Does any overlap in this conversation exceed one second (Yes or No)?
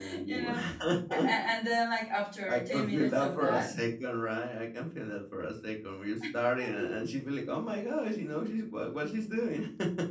Yes